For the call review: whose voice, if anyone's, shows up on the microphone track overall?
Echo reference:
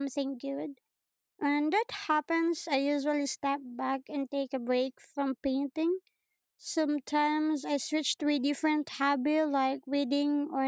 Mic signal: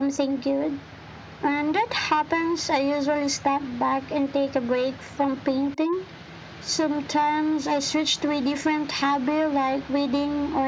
echo only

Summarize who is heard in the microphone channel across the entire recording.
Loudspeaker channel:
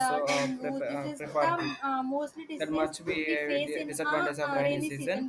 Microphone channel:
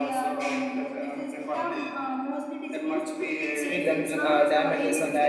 both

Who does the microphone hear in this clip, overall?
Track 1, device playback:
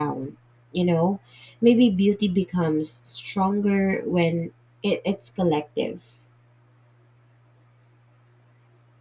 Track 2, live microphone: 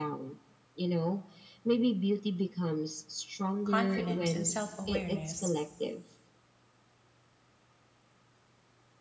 both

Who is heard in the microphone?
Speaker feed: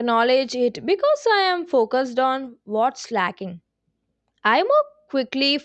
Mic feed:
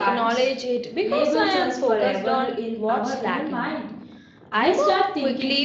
both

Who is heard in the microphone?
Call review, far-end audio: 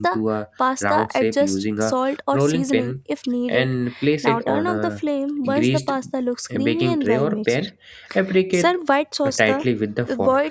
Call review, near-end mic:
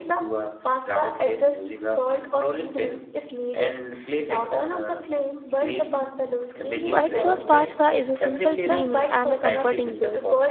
both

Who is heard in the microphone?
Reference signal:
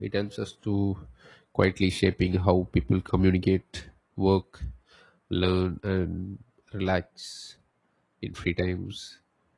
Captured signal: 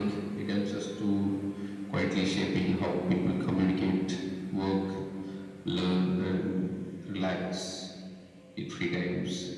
echo only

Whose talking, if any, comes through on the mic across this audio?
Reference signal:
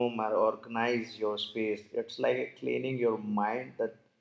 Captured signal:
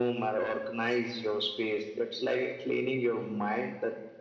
echo only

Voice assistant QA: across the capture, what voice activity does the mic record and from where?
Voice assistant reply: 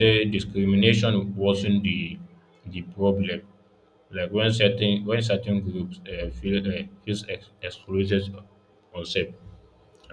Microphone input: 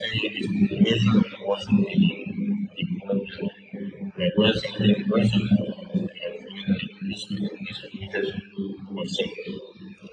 echo only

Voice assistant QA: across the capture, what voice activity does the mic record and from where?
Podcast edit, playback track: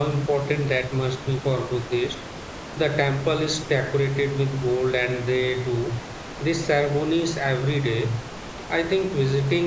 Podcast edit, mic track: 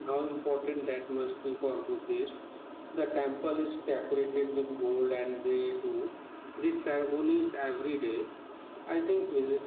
echo only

